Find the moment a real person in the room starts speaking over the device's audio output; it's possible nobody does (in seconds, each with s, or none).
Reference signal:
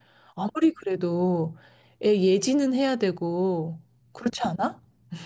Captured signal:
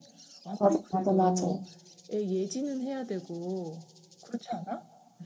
0.6 s